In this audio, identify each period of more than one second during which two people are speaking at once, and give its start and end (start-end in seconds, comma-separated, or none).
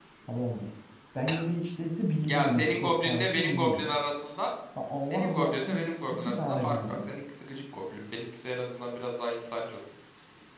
2.3-3.8, 5.0-7.0